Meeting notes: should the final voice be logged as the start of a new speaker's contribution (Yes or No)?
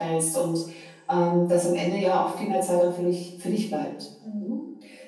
Yes